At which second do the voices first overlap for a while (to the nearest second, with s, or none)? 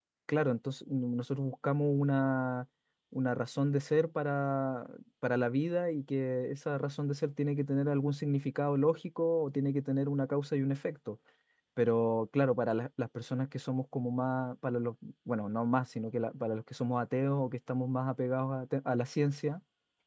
none